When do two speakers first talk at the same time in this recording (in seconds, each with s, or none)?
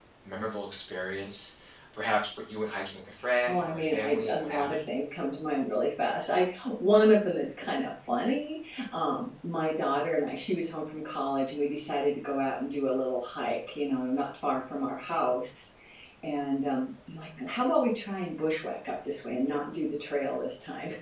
3.3 s